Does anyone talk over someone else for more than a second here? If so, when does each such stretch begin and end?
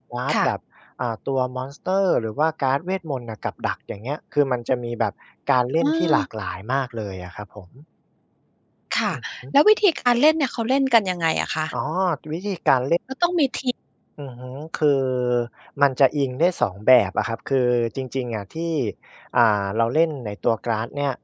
none

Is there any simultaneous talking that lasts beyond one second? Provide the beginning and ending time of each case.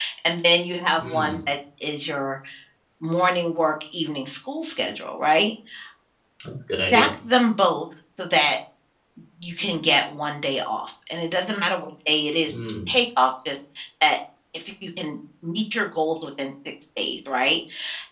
none

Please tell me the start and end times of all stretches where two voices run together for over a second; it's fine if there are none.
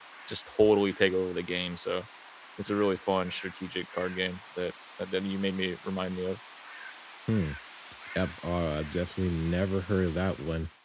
none

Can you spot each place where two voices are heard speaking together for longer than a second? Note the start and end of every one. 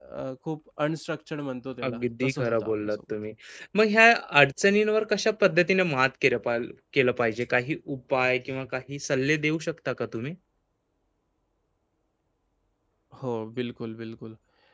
1.9-3.1

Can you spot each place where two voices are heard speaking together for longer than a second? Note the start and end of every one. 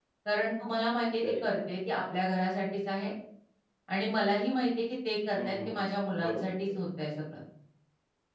5.3-6.8

